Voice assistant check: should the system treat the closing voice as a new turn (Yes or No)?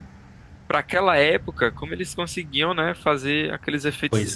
No